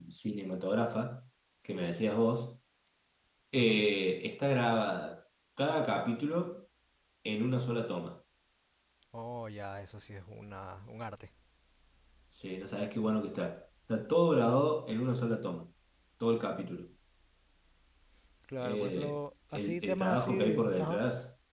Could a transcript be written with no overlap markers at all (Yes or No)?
No